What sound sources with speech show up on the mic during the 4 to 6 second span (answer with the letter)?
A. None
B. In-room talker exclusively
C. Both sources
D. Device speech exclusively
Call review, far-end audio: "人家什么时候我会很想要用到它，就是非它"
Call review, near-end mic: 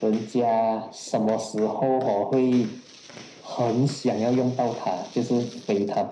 D